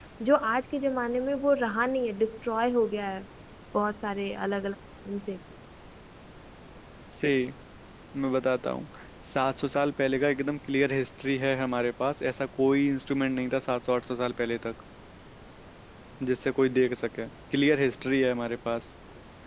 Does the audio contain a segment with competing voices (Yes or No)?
No